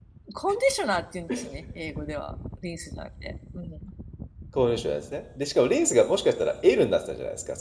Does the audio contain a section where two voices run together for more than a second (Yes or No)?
No